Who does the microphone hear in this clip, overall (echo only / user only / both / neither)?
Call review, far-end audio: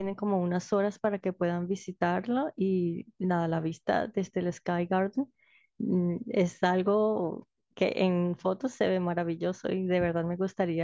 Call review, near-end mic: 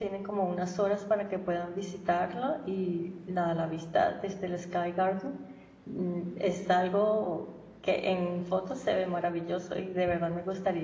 echo only